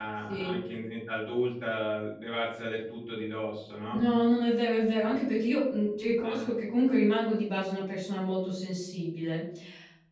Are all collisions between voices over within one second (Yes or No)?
Yes